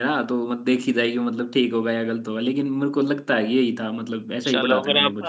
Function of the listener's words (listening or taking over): taking over